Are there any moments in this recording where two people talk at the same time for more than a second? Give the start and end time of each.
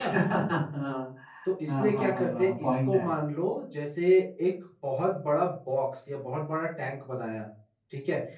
1.7-3.1

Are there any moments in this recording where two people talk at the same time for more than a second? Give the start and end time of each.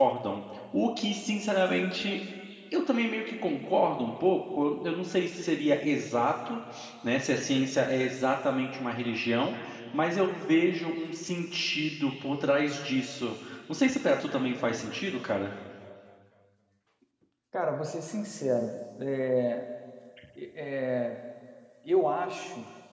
none

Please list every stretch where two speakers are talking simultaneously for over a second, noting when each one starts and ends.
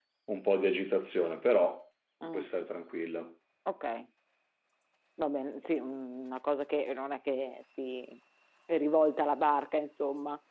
none

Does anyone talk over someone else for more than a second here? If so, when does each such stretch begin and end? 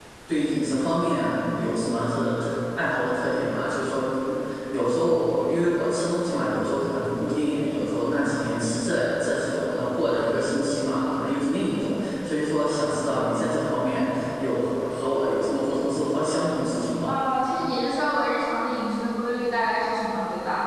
none

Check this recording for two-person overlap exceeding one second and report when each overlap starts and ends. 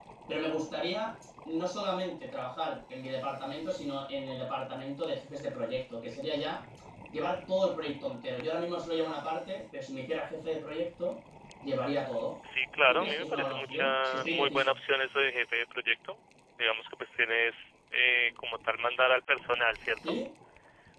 12.9-14.8

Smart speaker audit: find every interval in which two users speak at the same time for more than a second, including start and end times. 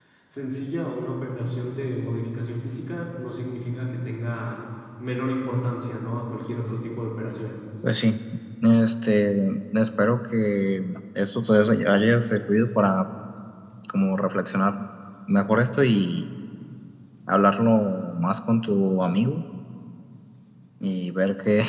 none

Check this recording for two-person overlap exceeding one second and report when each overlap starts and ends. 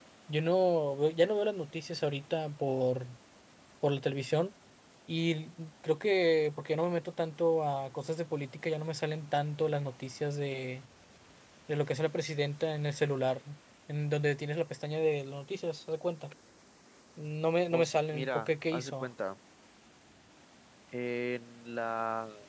17.7-19.1

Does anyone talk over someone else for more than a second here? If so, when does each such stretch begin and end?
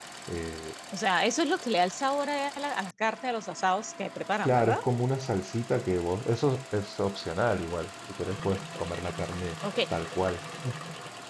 none

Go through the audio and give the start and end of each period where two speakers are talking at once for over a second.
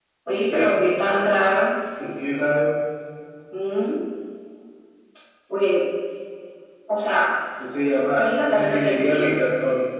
8.2-9.4

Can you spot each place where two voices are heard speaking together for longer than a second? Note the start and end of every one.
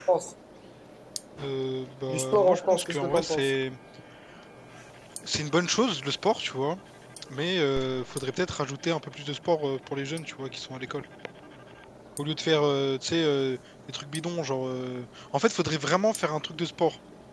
2.1-3.5

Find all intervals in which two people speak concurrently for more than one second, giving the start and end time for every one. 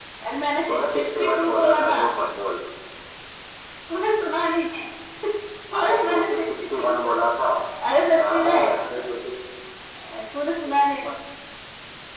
0.7-2.0, 5.8-7.1

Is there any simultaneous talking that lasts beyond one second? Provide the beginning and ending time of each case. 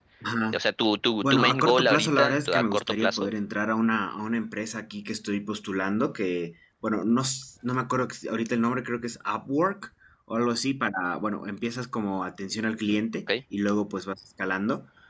1.2-3.3

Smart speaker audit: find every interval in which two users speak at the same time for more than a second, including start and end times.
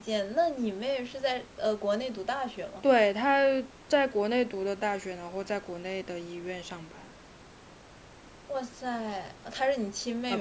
none

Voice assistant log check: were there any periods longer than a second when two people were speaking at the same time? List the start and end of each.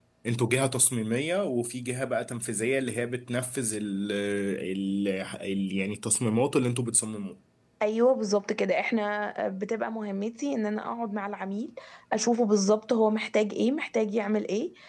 none

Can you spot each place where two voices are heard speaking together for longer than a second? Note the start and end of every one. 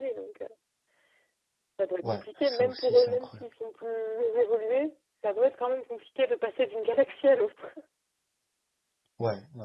2.1-3.4

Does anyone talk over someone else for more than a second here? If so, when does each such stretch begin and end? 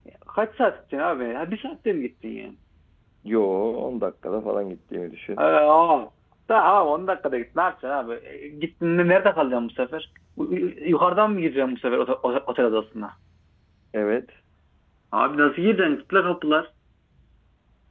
none

